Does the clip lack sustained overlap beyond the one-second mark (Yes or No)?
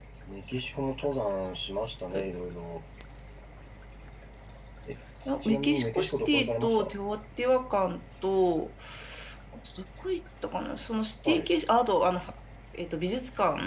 No